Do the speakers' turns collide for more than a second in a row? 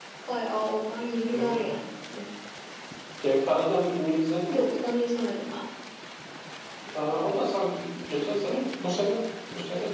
No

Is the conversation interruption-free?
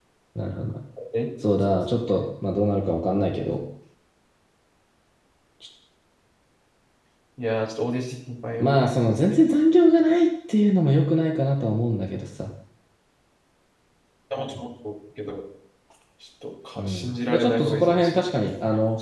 No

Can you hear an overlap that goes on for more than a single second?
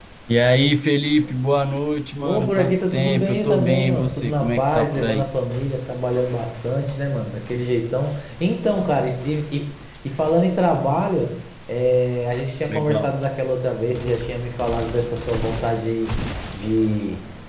Yes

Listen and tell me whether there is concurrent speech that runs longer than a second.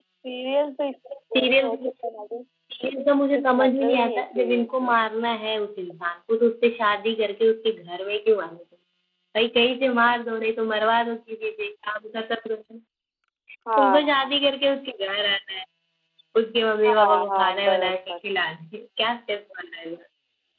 Yes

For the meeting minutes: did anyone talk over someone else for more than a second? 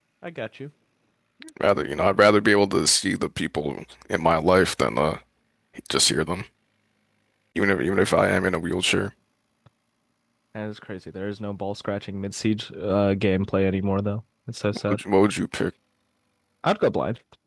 No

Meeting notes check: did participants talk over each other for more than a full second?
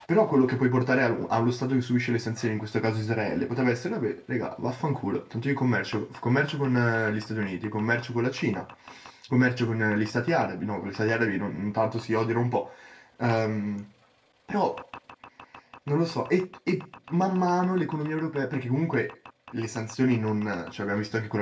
No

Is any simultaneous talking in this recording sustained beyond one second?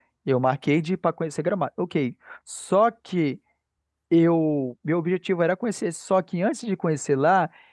No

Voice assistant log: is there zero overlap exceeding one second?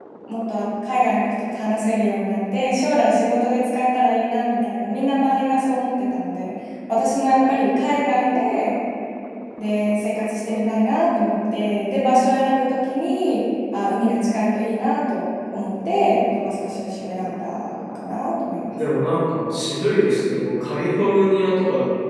Yes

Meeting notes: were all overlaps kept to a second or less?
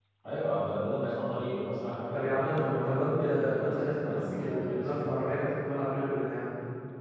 No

